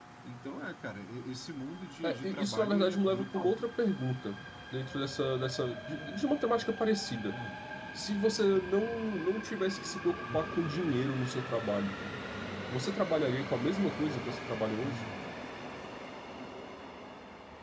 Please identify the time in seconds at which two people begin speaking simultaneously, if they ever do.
2 s

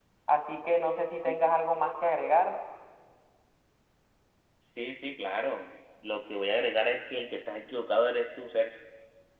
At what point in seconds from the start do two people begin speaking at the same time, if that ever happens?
none

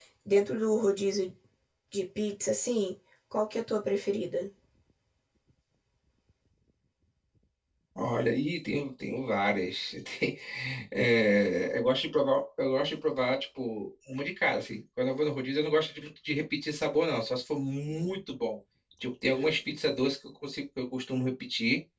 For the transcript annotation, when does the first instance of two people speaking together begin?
none

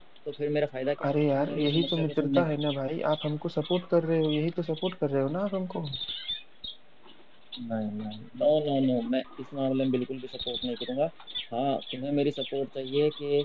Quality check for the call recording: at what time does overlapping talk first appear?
1 s

